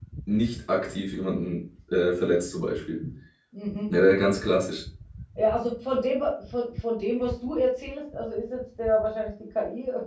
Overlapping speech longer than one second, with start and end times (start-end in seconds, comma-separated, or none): none